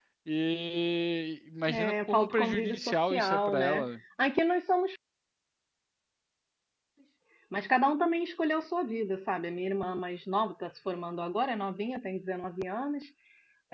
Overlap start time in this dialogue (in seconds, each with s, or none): 1.6 s